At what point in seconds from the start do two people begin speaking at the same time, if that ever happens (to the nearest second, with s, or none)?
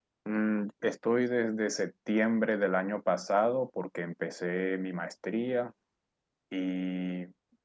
none